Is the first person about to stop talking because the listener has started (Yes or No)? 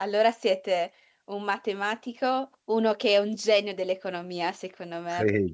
Yes